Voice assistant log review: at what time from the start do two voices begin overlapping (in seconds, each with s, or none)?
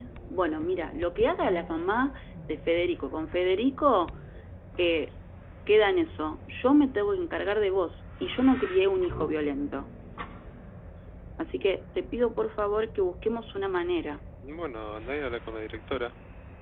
none